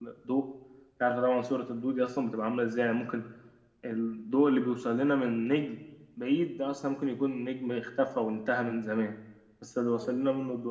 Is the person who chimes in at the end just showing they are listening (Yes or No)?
Yes